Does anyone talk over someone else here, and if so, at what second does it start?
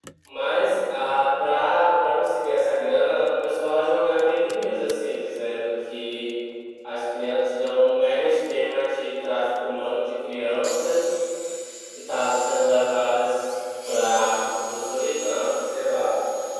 none

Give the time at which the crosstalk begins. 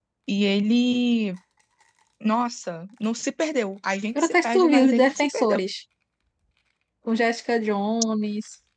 4 s

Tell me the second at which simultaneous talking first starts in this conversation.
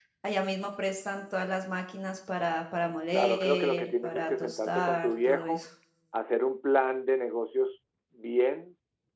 3 s

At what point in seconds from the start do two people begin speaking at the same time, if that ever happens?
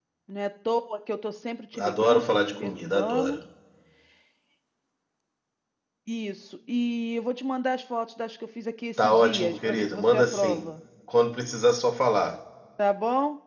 2 s

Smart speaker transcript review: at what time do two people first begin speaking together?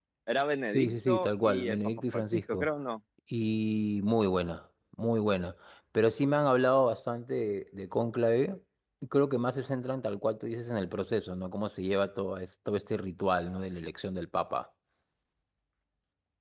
1 s

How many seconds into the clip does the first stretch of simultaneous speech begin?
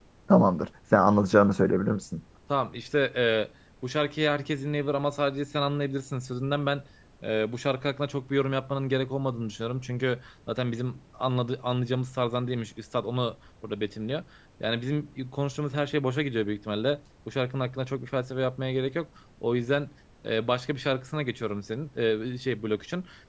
none

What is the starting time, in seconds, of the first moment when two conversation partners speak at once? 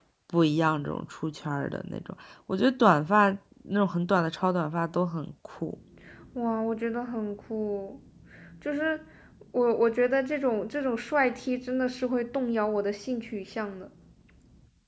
none

